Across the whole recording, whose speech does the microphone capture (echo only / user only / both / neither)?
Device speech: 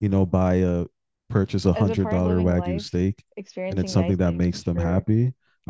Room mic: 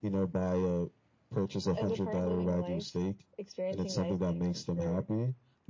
echo only